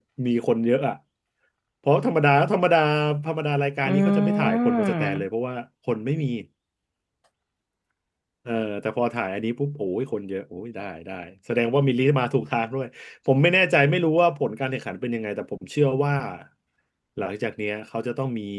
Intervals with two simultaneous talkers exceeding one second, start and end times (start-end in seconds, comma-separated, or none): 3.9-5.3